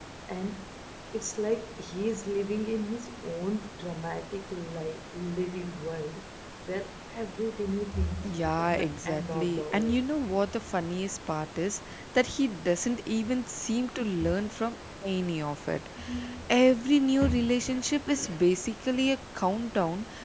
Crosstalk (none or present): present